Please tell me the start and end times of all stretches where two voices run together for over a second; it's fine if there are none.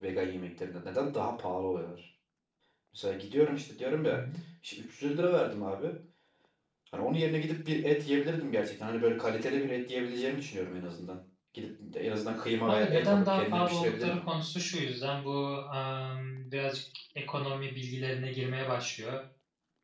12.7-14.2

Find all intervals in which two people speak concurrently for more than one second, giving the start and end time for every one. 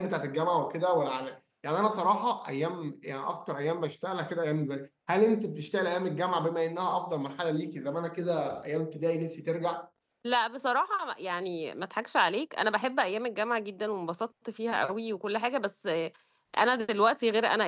none

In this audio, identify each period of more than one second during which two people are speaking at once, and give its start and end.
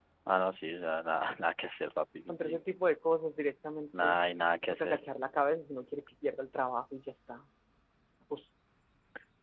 none

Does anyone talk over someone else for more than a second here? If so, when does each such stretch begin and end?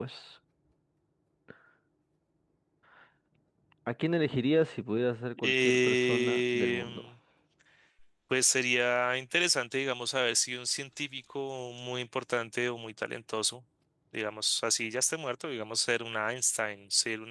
5.4-7.1

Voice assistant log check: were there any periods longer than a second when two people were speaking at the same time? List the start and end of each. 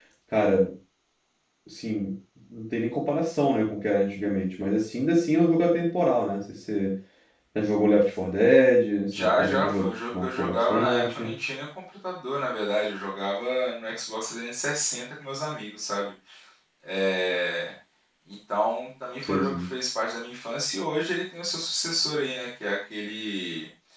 9.1-11.3

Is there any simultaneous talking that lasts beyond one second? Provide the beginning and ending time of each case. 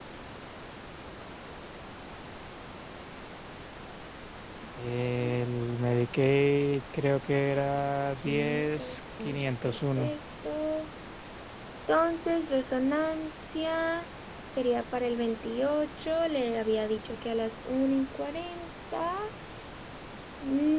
8.2-10.1

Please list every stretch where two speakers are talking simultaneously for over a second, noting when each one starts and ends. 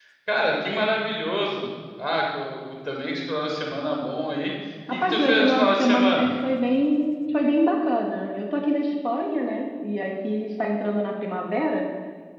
4.9-6.3

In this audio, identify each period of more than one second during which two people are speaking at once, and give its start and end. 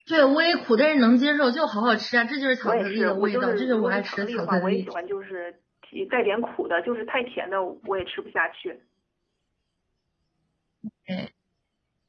2.6-4.9

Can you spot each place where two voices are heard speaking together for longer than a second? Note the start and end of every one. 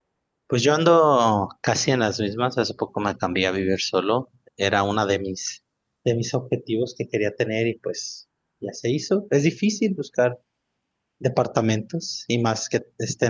none

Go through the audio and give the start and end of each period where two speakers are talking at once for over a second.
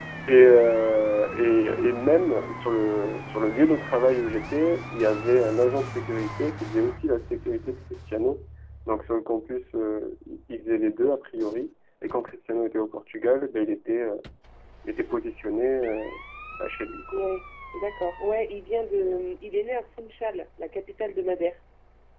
none

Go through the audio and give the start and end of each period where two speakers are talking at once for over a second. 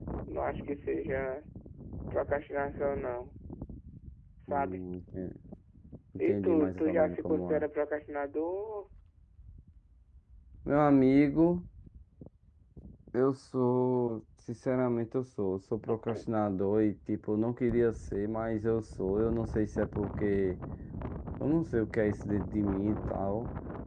6.3-7.7

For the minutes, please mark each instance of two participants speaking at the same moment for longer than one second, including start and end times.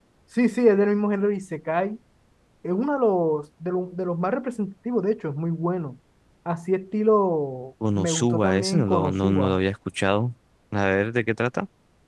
8.0-9.6

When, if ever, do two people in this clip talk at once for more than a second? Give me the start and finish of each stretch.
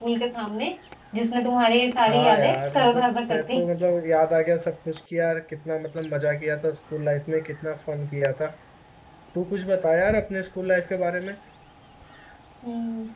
2.1-3.6

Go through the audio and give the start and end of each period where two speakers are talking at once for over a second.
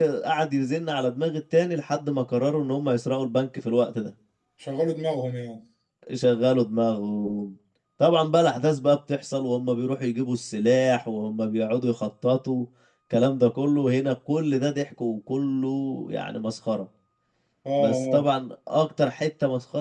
none

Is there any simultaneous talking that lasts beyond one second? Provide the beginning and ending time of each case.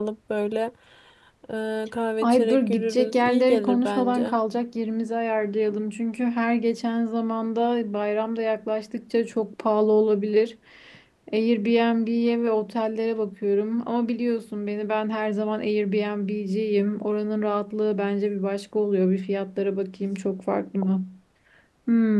2.2-4.4

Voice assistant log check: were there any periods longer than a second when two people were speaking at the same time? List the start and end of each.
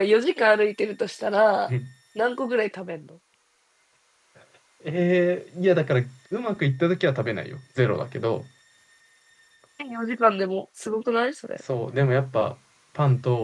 none

